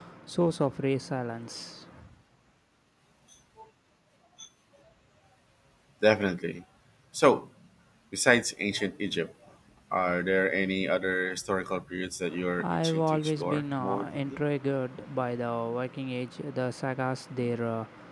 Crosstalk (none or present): present